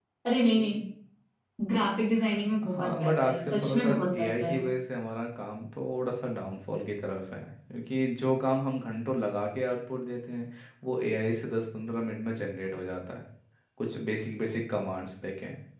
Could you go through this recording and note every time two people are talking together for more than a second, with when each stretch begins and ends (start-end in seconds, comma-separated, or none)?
2.6-4.6